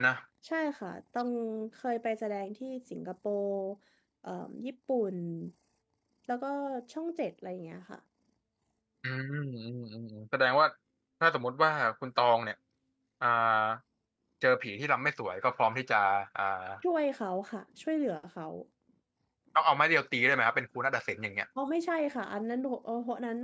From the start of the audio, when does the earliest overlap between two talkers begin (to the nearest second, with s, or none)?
none